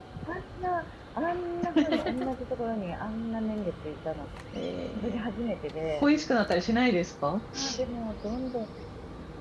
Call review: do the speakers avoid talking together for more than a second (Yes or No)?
Yes